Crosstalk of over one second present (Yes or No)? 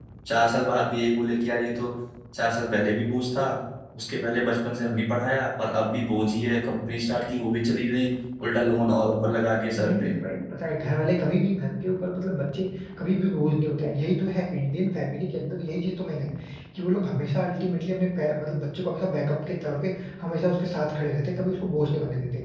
No